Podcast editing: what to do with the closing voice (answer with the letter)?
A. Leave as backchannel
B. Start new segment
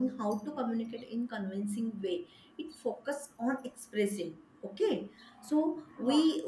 A